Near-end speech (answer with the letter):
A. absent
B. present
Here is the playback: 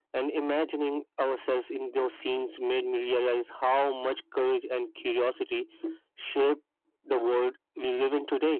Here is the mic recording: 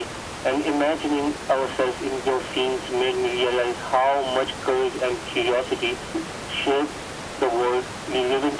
A